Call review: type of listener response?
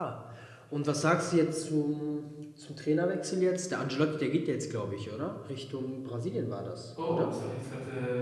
taking over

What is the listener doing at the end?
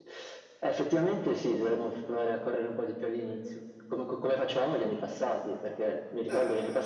listening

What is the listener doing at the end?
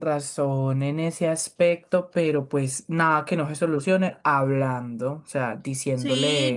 taking over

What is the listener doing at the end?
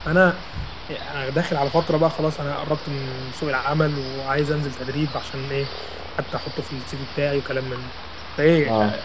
listening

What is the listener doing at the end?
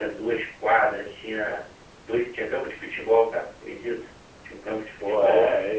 taking over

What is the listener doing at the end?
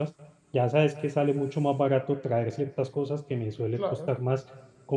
listening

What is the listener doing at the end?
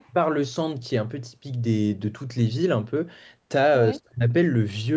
listening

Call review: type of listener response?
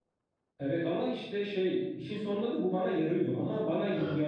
listening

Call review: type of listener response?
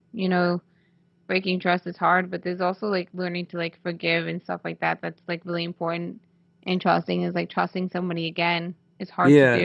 taking over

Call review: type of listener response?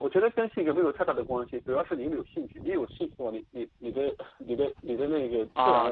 taking over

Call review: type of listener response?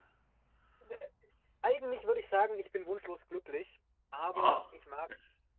listening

